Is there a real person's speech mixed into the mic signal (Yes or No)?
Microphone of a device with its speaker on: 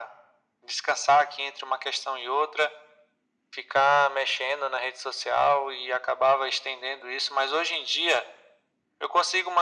No